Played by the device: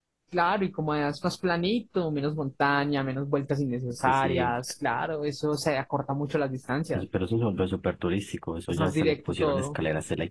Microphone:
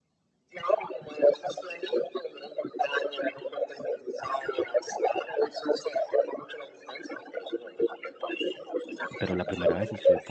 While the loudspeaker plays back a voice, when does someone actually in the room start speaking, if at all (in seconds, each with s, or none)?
9.2 s